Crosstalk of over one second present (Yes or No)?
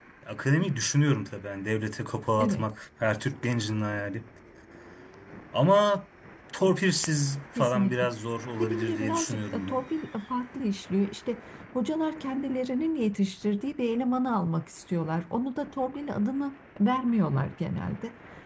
Yes